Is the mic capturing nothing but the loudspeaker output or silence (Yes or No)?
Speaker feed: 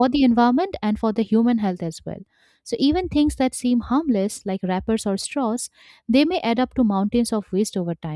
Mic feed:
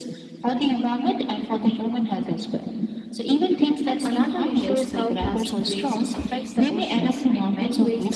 No